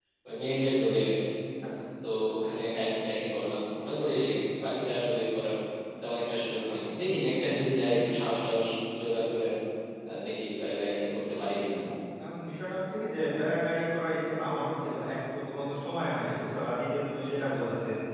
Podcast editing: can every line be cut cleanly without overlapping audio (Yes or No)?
Yes